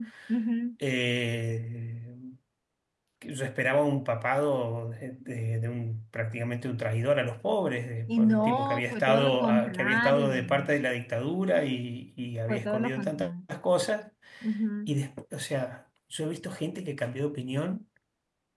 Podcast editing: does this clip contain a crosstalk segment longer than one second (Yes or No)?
Yes